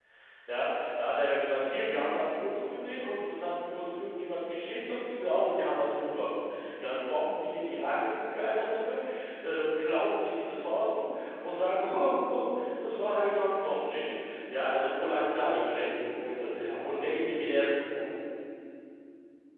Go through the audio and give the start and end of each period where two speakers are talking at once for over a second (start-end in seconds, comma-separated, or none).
15.1-17.8